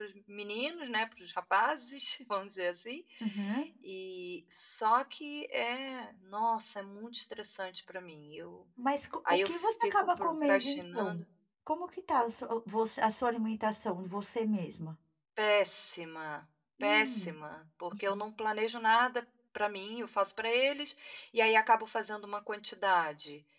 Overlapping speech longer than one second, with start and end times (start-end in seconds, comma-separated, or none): 9.3-11.2